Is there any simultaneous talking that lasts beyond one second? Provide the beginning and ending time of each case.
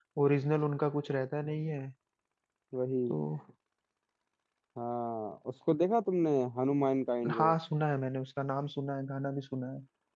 none

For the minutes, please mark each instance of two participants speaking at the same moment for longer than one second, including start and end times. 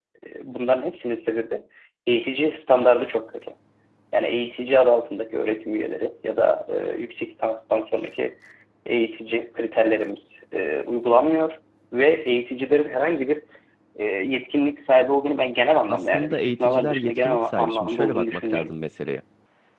15.9-18.7

